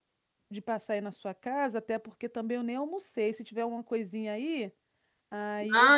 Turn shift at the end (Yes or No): Yes